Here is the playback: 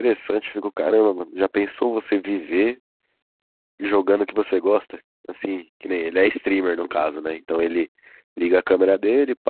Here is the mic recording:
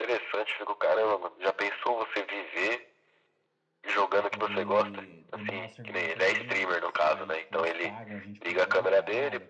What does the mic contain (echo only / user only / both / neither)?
both